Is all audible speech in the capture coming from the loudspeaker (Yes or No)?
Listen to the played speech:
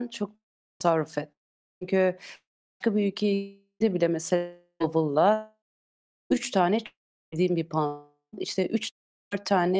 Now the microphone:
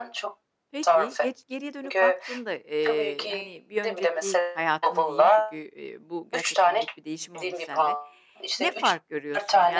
No